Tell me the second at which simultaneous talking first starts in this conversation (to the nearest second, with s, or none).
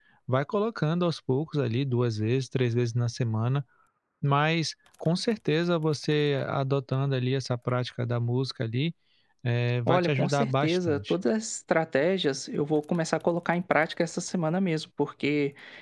10 s